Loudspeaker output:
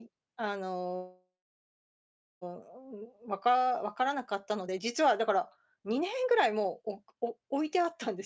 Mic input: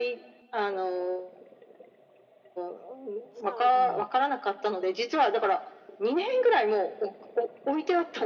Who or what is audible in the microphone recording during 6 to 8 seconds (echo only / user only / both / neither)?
echo only